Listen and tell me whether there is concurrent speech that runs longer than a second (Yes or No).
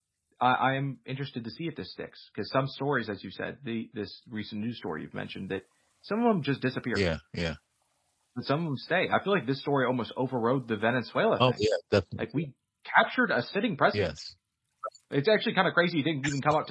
No